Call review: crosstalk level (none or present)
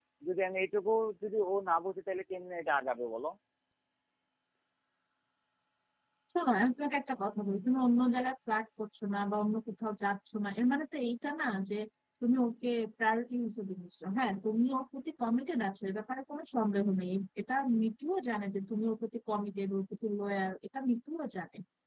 none